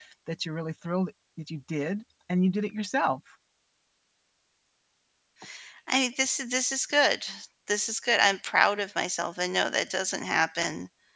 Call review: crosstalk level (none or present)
none